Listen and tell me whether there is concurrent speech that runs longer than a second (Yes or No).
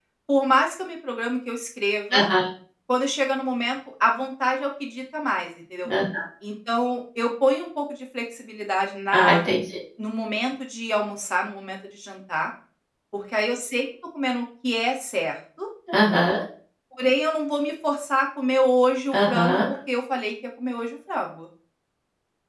No